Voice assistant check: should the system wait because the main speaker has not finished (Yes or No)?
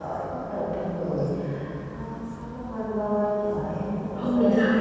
No